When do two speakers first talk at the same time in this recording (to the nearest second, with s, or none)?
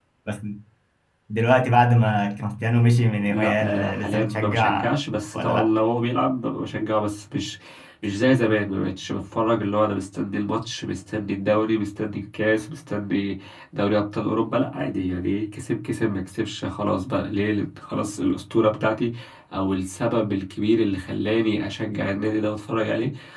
3 s